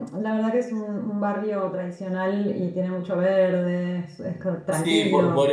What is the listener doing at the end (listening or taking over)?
taking over